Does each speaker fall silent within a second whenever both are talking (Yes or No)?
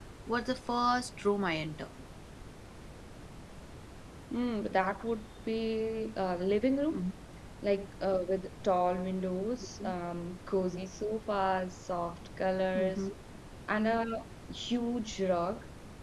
Yes